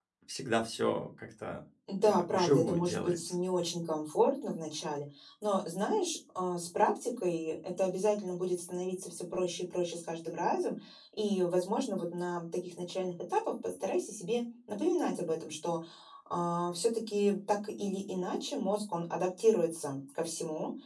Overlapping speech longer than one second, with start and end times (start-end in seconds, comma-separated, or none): 2.0-3.4